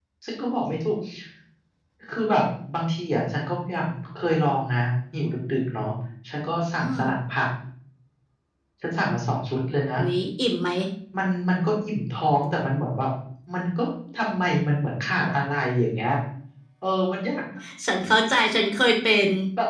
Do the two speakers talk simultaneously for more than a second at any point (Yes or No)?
No